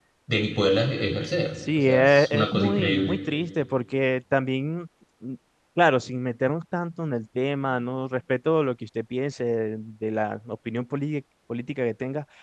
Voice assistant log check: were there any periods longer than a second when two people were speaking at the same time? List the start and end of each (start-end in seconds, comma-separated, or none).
1.8-3.2